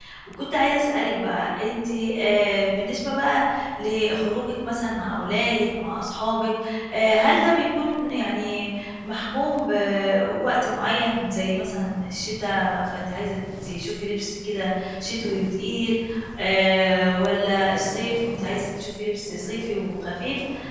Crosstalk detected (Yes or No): No